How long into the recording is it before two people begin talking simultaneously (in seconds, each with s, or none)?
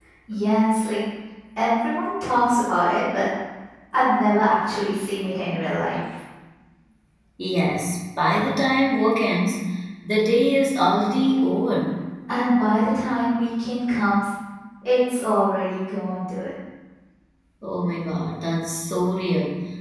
none